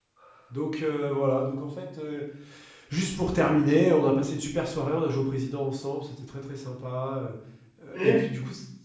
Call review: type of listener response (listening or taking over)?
listening